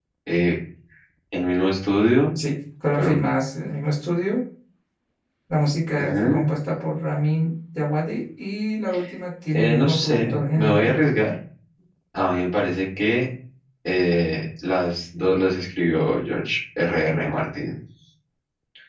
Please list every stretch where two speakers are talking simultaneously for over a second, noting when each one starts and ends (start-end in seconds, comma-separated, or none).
9.5-10.9